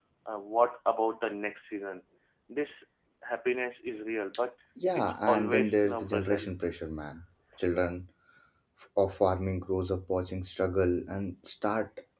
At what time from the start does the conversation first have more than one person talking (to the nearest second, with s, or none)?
5 s